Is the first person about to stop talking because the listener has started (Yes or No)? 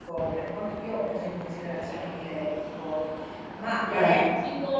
No